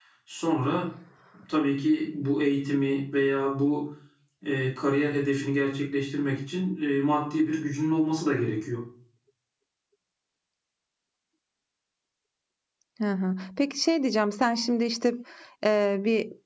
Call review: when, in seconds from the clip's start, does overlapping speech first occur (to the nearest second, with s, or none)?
none